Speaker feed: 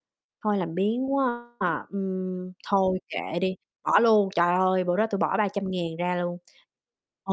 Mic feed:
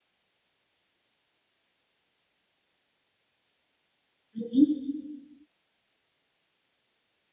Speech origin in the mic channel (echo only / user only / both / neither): user only